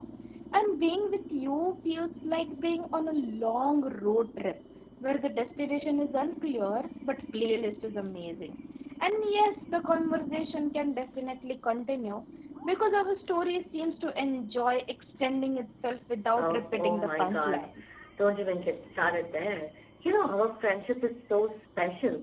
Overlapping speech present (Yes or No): Yes